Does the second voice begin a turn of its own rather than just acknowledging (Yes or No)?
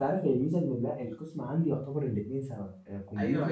Yes